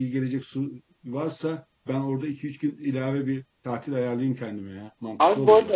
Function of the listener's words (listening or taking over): taking over